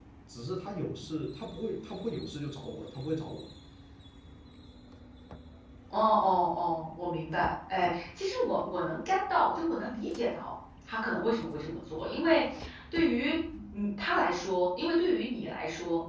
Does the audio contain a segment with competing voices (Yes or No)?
No